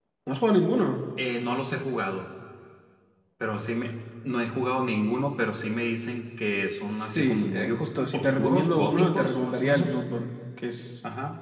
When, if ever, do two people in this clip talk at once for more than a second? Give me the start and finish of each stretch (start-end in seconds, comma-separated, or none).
7.0-10.0